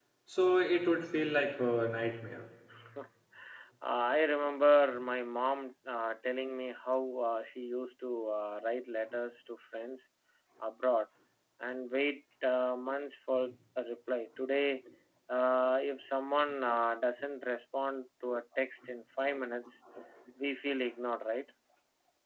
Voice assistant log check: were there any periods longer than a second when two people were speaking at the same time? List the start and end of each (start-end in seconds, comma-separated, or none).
none